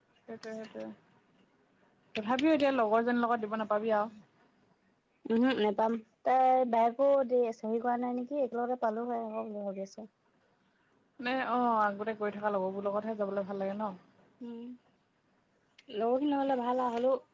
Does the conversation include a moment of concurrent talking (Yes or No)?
No